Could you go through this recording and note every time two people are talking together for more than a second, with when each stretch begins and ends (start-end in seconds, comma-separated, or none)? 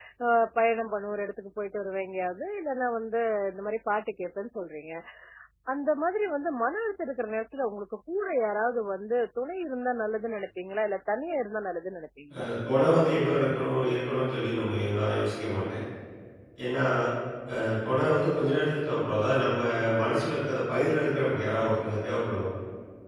none